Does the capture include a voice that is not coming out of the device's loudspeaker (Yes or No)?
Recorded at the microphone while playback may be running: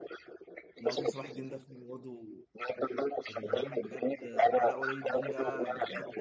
Yes